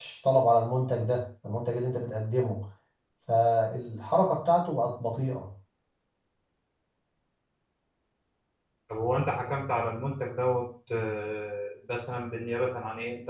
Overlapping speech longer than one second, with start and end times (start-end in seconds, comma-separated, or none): none